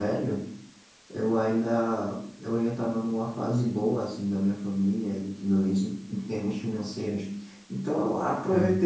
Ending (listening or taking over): listening